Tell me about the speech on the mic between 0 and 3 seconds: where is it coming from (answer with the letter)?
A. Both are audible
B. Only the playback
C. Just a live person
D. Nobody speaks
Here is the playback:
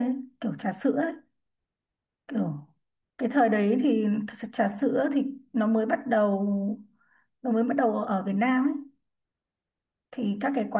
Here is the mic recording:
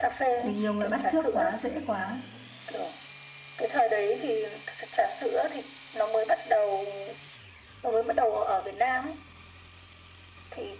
A